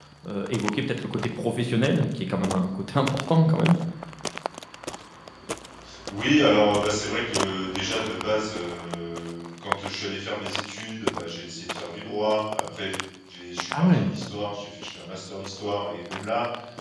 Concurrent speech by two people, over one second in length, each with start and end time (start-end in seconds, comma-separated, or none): none